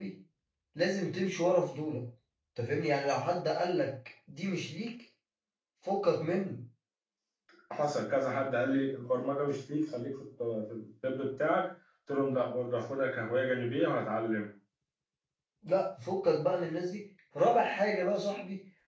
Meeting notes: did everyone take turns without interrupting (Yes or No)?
Yes